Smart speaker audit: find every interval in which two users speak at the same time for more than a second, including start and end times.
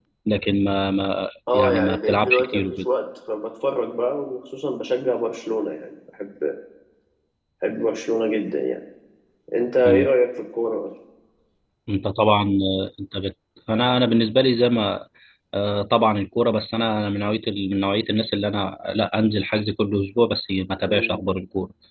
1.5-2.8

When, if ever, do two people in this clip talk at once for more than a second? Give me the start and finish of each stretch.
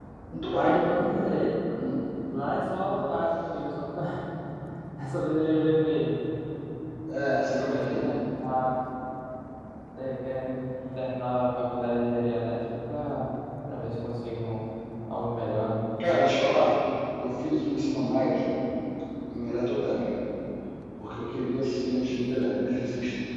none

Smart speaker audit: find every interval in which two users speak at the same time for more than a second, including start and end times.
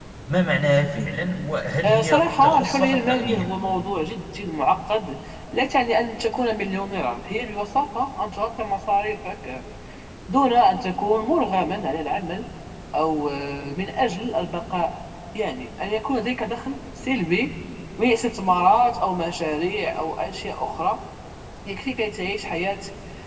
1.8-3.4

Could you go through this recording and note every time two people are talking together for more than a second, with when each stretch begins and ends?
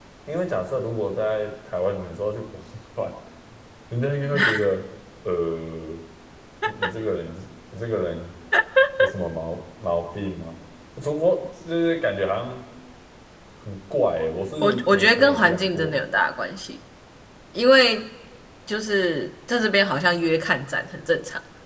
14.6-16.0

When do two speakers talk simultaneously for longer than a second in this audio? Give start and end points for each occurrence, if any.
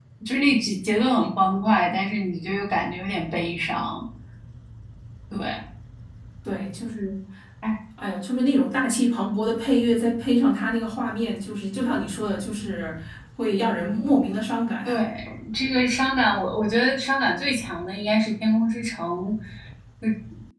none

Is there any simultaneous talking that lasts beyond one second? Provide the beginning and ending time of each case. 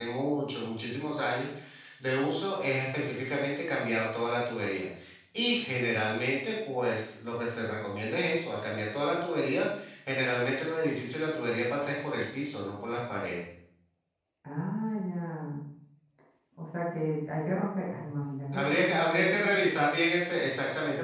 18.5-19.7

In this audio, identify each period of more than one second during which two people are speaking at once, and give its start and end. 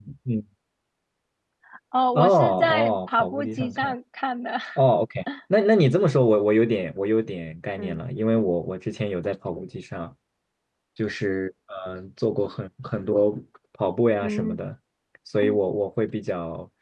2.2-3.9

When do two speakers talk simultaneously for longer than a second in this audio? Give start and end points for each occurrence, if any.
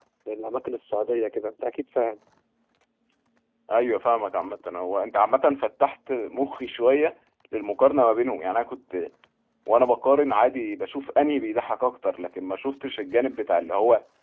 none

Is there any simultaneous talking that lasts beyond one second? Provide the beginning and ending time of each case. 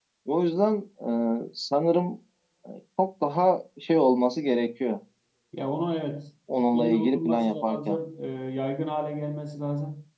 6.7-8.0

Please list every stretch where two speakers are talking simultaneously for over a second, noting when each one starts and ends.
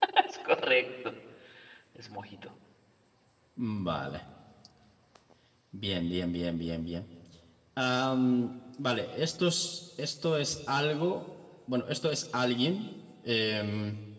none

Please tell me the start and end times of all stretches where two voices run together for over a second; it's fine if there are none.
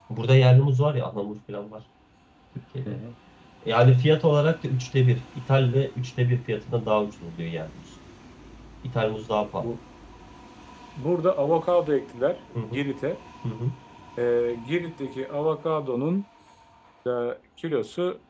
none

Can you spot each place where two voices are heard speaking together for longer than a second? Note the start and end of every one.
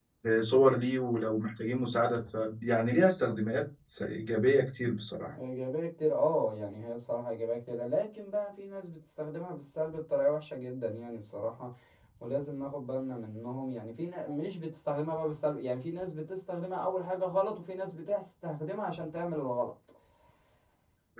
none

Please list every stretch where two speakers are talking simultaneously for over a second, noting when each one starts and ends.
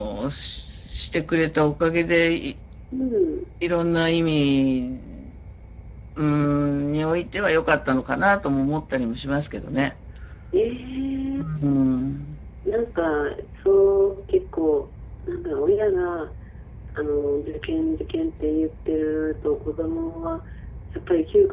none

